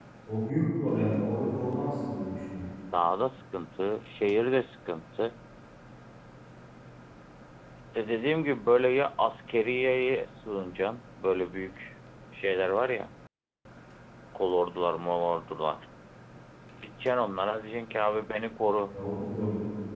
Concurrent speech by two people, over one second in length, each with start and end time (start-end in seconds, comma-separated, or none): none